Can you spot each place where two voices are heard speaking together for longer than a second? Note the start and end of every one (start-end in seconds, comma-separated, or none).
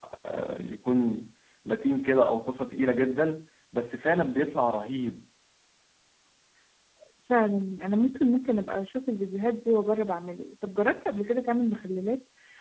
none